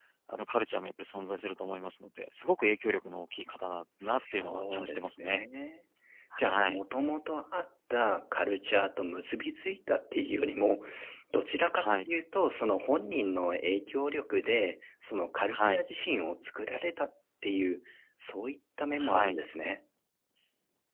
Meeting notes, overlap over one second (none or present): present